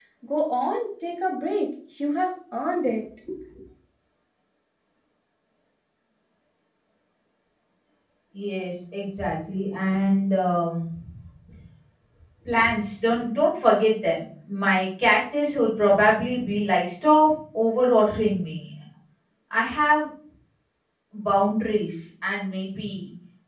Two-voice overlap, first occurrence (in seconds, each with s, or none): none